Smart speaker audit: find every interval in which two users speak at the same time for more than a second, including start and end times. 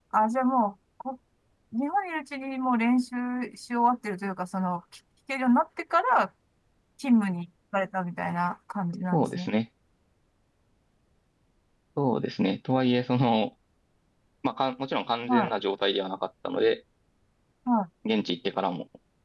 none

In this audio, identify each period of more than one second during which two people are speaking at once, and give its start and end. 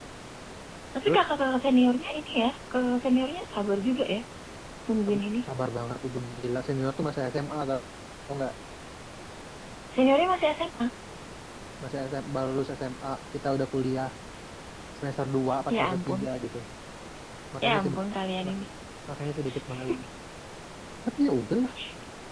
none

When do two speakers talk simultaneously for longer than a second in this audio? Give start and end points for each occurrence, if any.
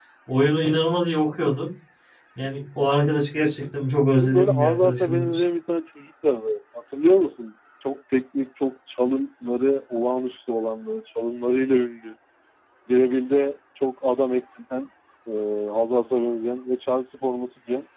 4.1-5.4

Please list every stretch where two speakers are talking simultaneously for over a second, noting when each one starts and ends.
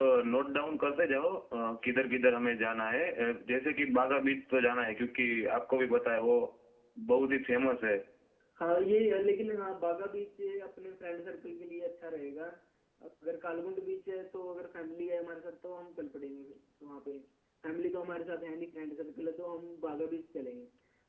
none

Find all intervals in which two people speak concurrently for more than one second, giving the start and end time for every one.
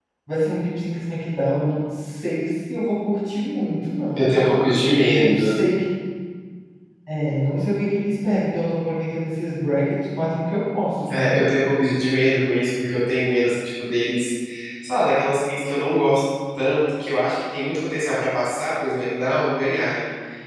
none

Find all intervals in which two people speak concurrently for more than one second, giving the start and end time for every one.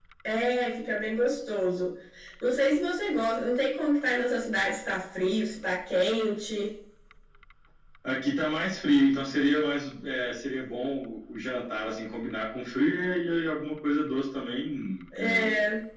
none

